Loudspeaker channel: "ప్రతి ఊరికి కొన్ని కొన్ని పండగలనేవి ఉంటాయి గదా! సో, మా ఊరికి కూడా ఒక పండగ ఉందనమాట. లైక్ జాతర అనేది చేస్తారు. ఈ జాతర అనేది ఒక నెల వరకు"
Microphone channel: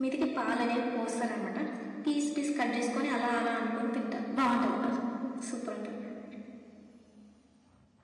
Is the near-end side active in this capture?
Yes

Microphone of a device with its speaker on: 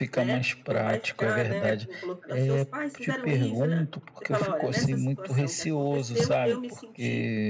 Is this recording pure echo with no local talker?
No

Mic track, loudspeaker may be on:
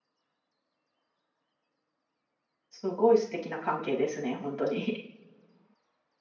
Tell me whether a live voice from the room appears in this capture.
Yes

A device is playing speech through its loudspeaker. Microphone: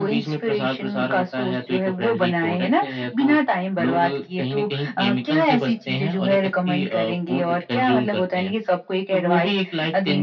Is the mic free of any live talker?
Yes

